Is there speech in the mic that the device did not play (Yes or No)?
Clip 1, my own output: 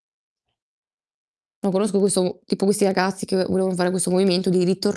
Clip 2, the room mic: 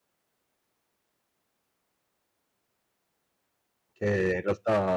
Yes